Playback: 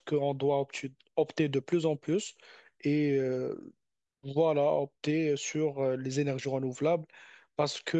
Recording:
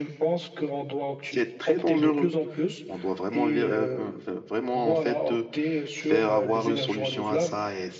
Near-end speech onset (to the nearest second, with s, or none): 1 s